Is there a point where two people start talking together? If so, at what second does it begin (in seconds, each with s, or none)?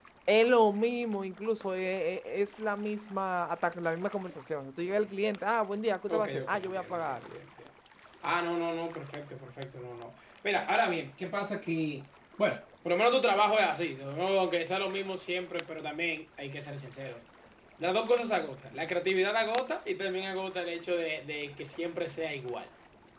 6.1 s